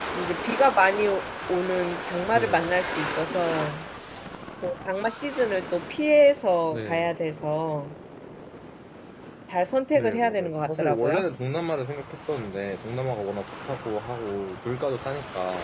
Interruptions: present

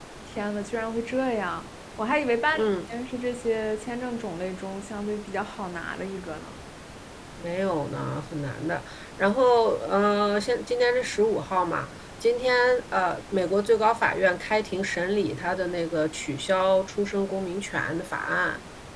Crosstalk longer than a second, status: none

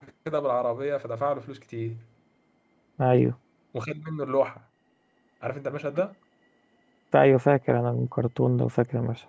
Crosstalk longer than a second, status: none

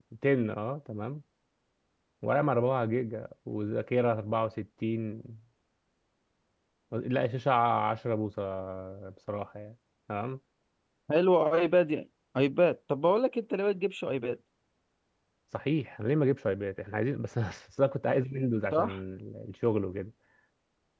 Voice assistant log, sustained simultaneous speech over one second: none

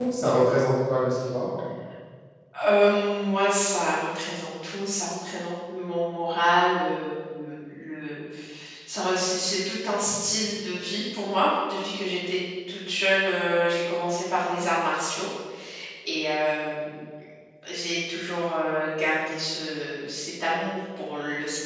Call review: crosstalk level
none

